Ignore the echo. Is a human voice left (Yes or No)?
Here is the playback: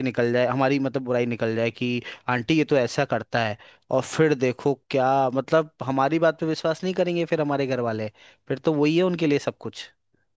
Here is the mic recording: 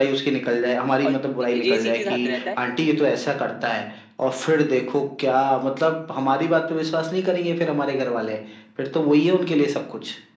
Yes